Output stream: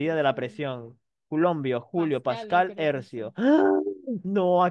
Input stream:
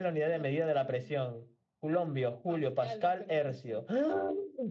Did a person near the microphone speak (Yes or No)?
No